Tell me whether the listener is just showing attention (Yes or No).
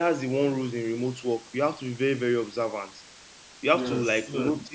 Yes